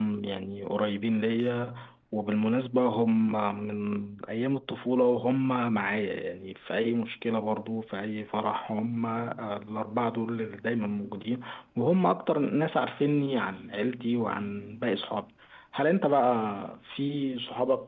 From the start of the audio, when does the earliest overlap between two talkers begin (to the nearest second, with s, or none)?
none